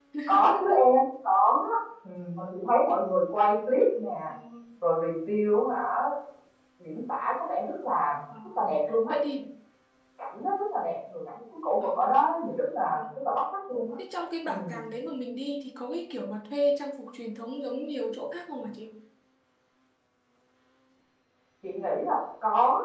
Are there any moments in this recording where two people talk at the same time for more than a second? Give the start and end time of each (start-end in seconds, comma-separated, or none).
none